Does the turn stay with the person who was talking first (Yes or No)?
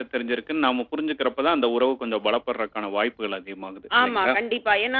No